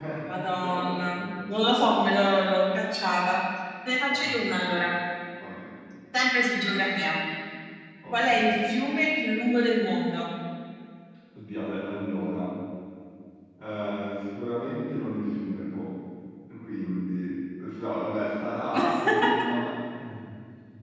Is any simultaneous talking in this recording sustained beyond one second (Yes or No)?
Yes